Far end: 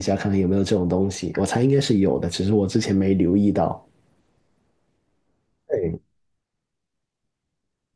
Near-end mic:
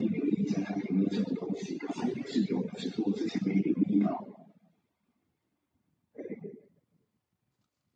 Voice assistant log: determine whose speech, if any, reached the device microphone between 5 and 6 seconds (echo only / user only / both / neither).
neither